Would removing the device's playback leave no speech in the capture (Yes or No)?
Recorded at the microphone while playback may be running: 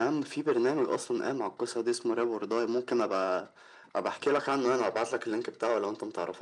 Yes